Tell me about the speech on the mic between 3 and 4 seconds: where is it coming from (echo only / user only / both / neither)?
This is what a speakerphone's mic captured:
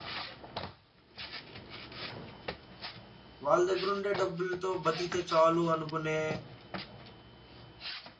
user only